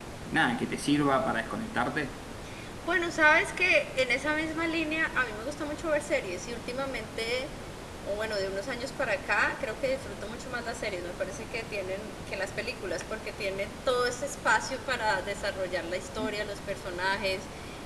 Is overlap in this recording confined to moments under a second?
Yes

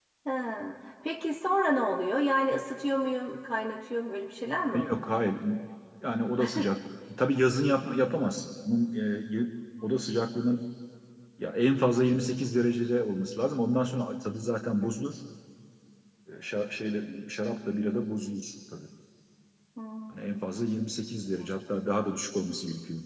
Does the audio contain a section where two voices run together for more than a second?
No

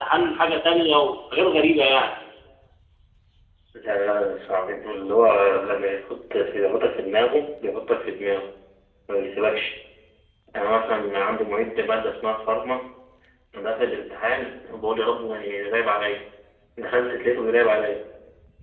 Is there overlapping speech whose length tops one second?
No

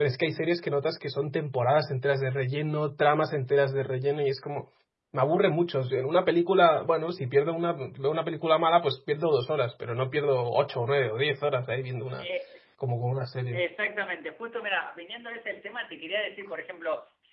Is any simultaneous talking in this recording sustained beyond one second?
No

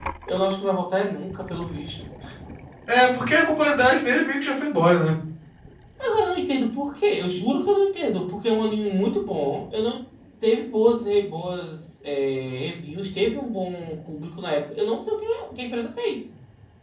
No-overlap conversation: Yes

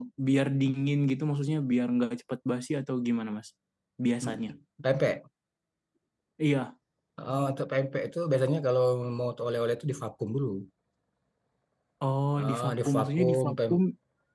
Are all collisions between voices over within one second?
No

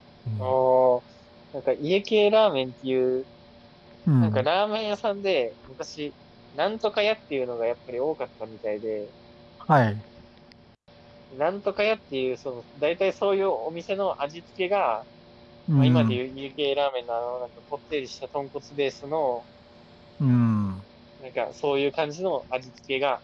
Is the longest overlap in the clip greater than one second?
No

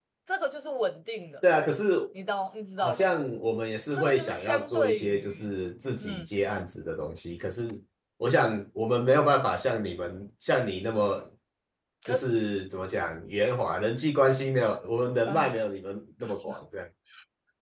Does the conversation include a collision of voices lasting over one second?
Yes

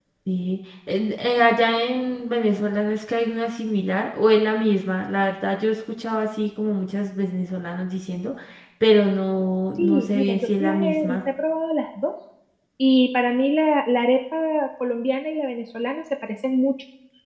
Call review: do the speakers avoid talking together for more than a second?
No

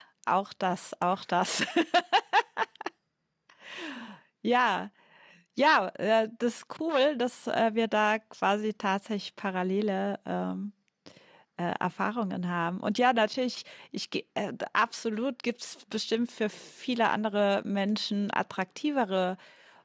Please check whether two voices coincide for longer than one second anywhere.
No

